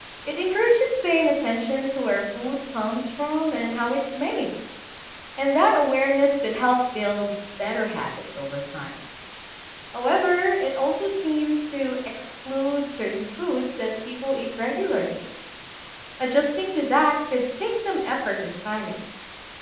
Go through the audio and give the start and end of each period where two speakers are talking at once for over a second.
none

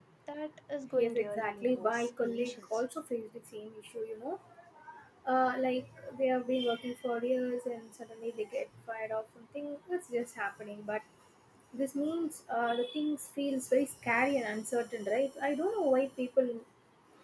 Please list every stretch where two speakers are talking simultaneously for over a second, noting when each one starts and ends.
1.0-2.6

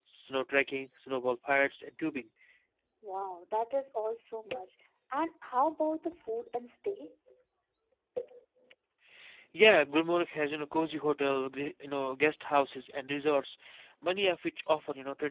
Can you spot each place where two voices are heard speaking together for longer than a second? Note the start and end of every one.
none

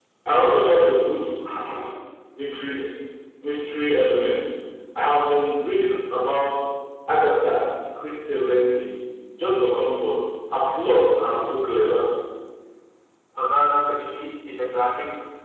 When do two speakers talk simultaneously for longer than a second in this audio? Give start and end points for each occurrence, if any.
none

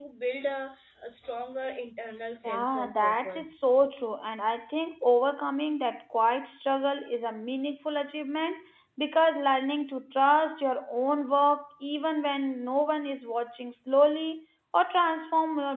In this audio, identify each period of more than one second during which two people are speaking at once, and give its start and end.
2.4-3.7

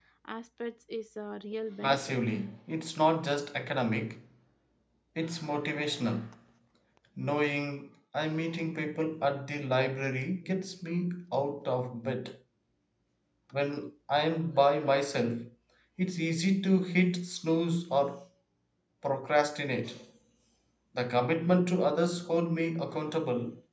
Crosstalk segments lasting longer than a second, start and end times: none

